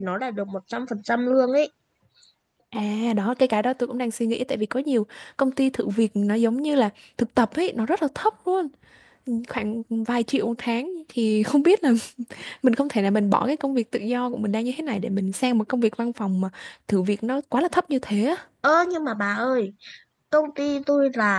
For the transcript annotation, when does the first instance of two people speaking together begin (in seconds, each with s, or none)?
none